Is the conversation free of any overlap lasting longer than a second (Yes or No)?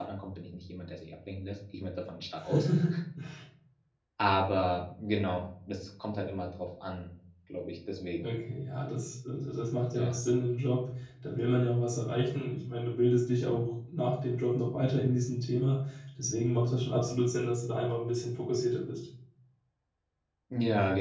Yes